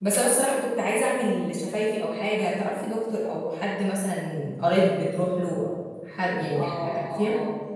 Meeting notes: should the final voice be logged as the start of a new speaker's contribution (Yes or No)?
Yes